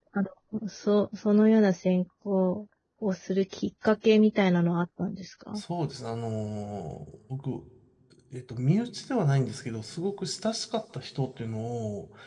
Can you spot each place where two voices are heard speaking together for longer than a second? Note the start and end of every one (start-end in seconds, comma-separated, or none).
none